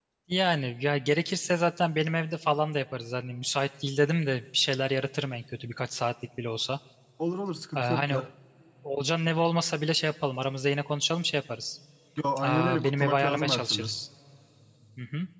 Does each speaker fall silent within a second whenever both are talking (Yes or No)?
No